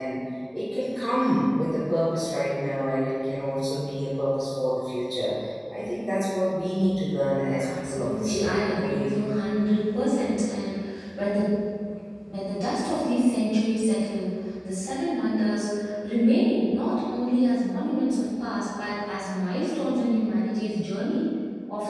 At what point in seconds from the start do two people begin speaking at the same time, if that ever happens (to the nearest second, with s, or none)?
8 s